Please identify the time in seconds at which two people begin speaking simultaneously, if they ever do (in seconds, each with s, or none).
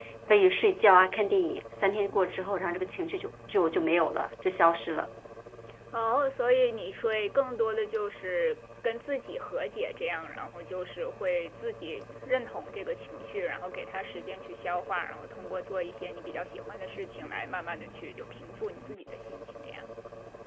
none